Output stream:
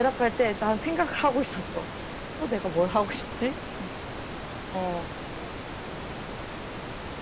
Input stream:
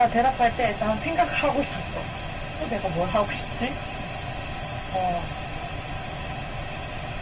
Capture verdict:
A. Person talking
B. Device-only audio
B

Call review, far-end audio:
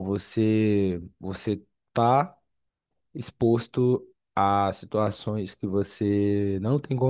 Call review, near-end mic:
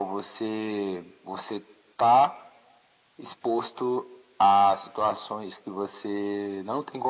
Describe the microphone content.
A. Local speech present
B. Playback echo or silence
B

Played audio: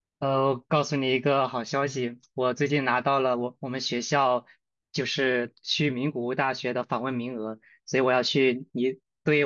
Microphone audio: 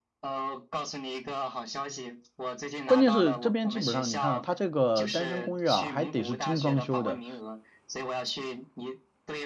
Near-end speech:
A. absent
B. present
B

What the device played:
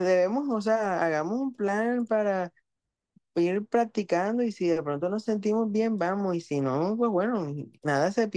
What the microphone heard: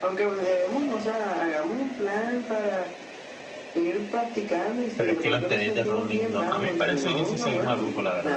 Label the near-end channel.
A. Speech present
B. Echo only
A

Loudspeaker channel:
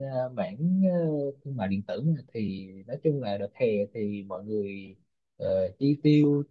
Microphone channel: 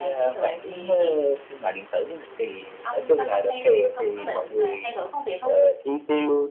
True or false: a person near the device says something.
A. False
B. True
B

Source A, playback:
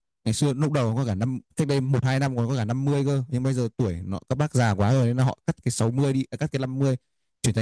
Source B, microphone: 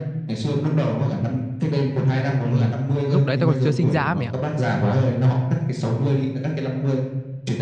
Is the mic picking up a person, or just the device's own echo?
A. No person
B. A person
B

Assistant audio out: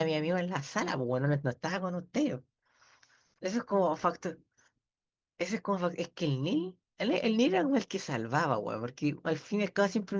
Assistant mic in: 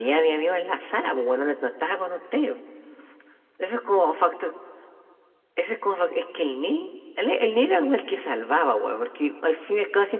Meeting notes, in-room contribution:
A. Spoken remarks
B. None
B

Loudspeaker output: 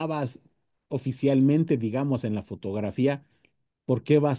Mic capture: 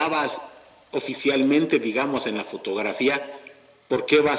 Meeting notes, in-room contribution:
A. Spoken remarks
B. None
B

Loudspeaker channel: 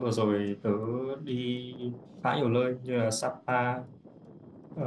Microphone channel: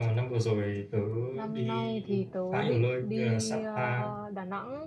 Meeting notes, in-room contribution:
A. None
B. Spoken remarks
B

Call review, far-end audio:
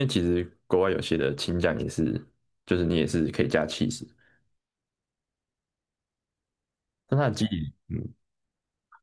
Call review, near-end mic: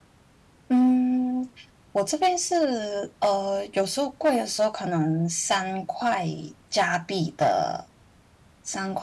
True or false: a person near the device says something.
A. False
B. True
B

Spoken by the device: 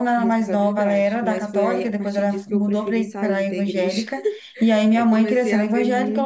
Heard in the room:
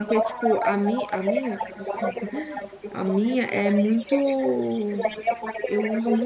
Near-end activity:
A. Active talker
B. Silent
A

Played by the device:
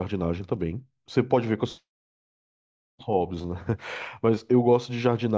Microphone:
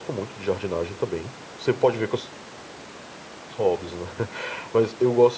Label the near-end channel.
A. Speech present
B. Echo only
B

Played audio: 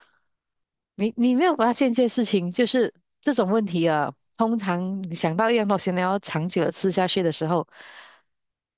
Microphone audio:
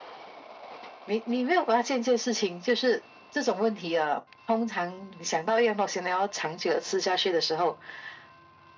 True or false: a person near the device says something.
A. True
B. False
B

